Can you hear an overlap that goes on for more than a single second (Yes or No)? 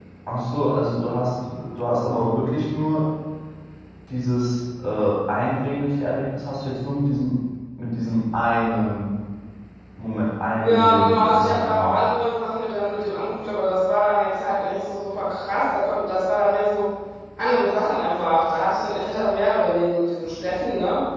Yes